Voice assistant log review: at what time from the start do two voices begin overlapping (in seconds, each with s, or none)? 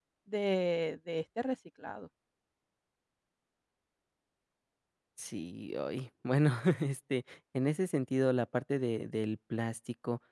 none